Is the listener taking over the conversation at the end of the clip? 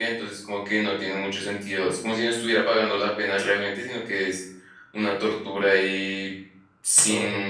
No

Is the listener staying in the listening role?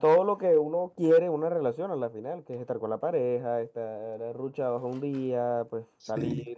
Yes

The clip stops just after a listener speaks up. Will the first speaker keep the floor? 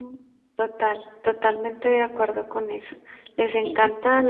Yes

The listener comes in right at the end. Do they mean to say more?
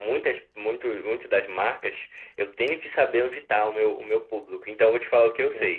No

